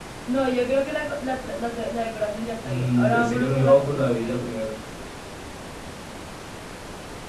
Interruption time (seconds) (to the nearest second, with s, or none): 3 s